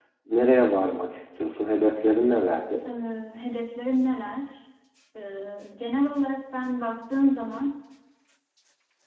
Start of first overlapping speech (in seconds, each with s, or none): none